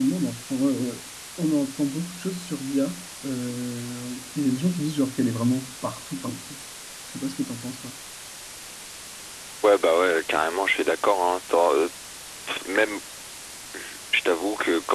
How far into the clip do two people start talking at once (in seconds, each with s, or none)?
none